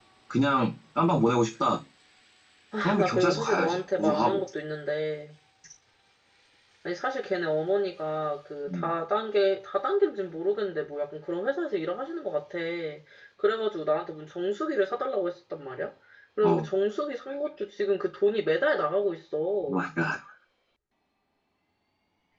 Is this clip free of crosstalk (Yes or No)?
No